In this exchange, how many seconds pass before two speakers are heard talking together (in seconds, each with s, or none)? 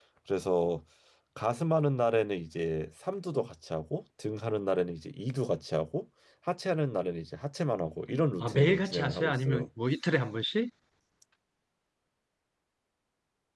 8.4 s